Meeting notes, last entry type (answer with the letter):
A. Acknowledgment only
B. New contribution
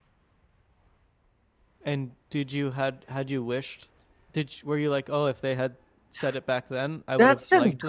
B